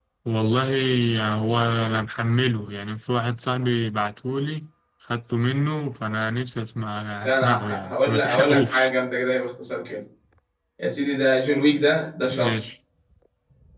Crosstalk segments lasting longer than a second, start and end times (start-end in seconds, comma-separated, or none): 7.2-8.9